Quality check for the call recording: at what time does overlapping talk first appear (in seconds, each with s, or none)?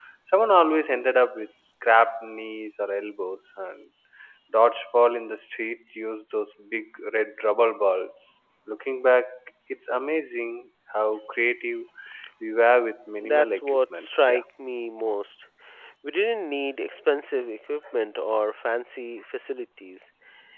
13.2 s